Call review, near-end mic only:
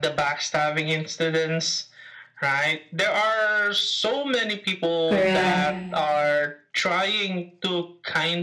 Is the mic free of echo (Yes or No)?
No